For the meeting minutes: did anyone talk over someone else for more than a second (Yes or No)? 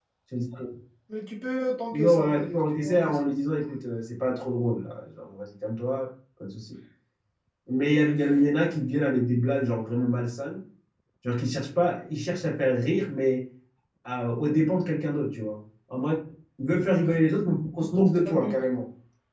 Yes